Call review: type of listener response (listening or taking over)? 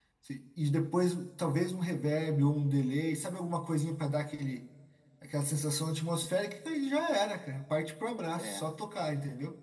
listening